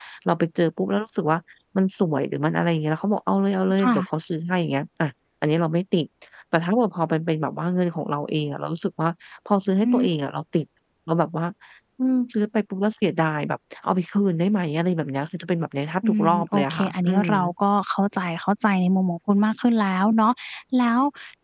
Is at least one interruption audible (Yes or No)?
Yes